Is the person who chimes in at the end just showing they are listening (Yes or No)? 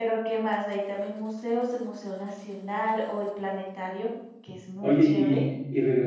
No